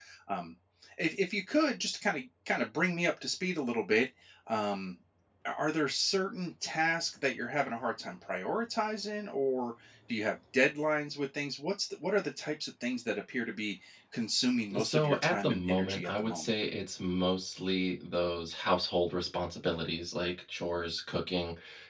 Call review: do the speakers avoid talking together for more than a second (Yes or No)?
No